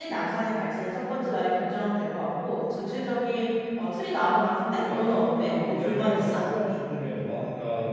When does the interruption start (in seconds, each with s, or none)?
4.2 s